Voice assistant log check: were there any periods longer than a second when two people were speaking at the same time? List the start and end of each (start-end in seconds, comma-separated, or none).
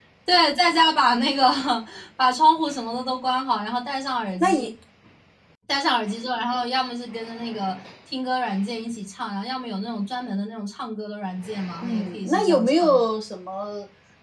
11.8-13.0